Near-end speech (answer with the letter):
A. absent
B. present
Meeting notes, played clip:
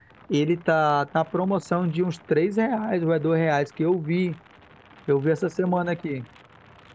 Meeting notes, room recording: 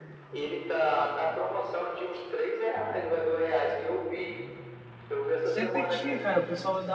B